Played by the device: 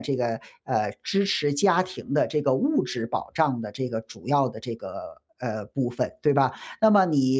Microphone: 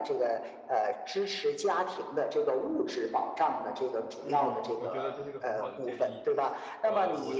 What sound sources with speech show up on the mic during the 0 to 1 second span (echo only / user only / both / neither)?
echo only